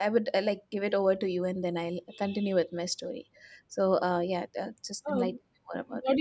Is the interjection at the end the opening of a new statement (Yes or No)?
Yes